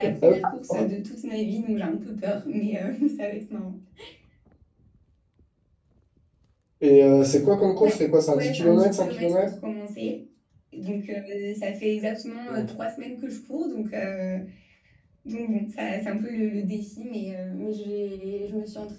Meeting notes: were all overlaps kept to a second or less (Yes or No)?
No